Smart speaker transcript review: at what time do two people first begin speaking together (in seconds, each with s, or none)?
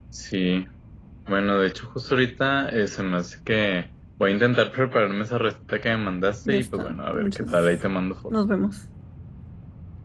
6.4 s